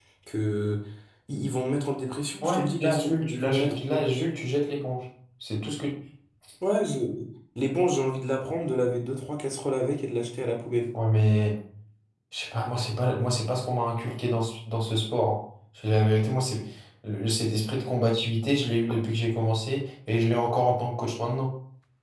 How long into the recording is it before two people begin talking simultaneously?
2 s

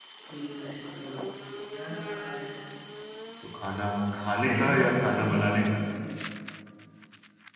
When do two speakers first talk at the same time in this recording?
4 s

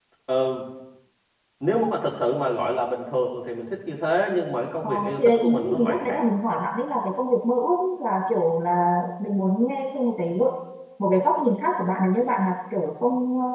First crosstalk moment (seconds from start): 5 s

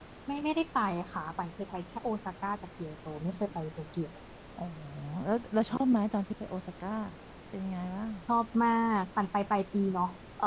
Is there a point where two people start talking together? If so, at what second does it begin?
none

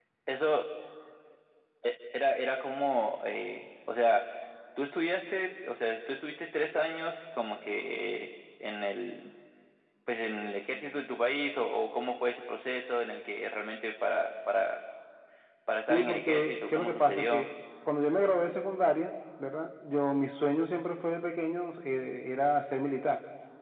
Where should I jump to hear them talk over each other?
16 s

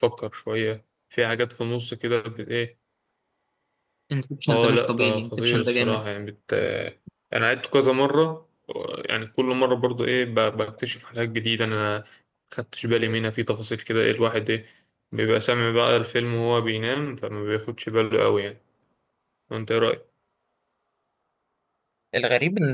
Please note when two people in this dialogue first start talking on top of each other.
4 s

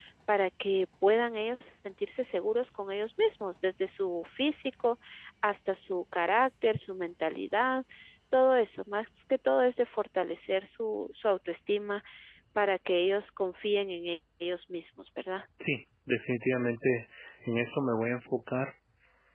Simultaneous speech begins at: none

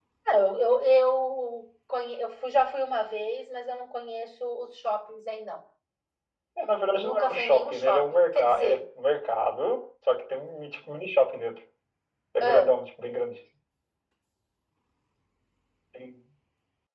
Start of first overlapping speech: 7 s

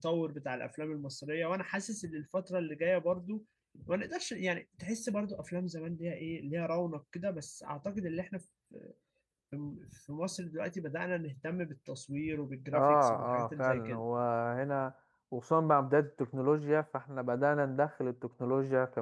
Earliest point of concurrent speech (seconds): 13 s

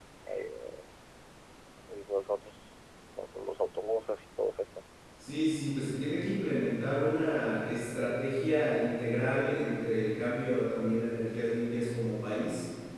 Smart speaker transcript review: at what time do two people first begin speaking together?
none

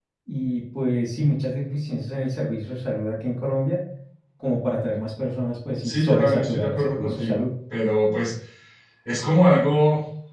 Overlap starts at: 6 s

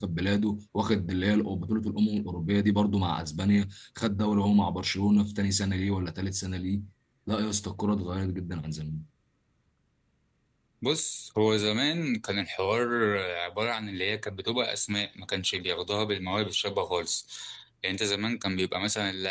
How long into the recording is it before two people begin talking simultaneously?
none

